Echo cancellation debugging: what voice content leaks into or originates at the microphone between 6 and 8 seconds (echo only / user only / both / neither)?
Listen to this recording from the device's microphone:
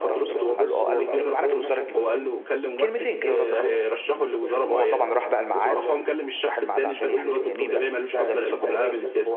both